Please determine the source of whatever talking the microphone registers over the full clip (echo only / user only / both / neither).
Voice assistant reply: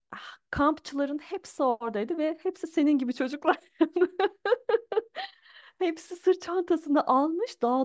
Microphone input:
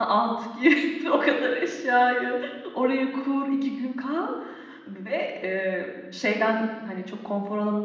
user only